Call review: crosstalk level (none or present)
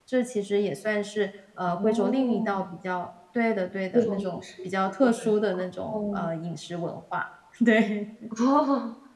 present